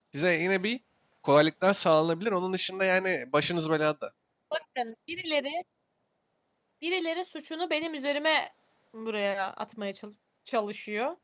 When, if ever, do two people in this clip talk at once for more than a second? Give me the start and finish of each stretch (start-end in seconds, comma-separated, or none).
none